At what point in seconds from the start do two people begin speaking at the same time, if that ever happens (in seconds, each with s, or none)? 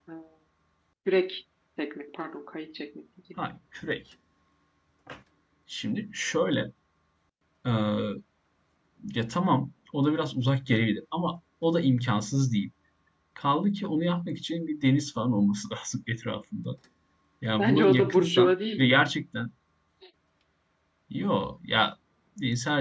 17.6 s